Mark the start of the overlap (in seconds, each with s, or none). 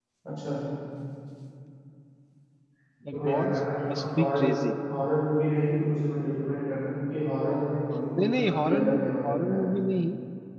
3.1 s